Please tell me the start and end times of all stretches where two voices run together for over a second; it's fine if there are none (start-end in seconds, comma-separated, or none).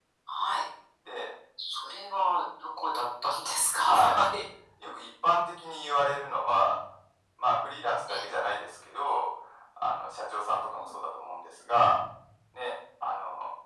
none